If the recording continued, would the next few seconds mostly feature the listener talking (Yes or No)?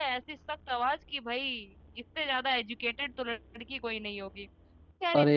No